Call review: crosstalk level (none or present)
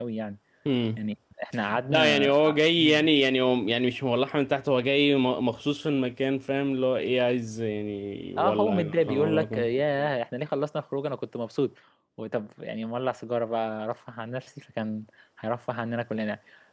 present